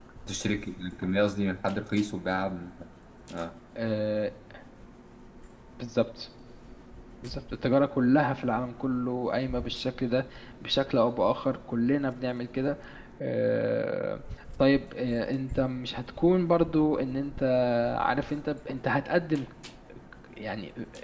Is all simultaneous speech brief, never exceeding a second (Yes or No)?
Yes